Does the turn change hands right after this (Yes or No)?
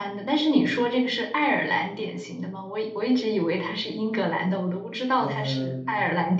Yes